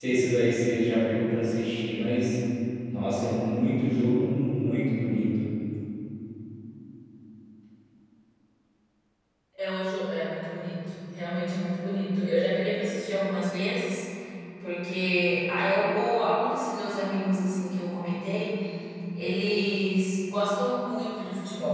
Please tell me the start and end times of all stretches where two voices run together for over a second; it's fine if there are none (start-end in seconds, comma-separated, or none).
none